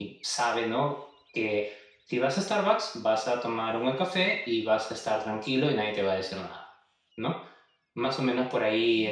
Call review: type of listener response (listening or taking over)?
listening